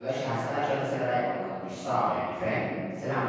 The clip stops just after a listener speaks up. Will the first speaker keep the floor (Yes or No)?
Yes